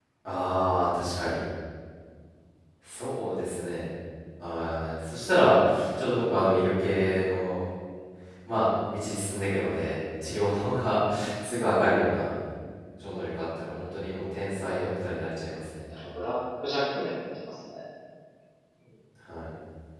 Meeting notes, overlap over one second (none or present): none